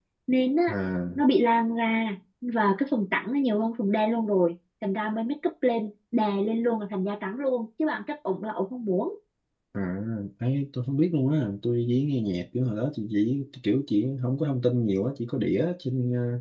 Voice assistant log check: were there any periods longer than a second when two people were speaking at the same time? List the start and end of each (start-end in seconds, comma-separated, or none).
none